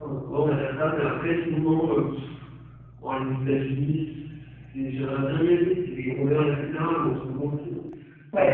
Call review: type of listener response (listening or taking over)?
listening